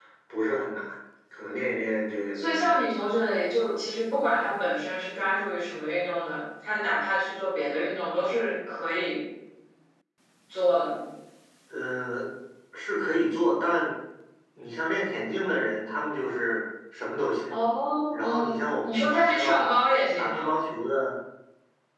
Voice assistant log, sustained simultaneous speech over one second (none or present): present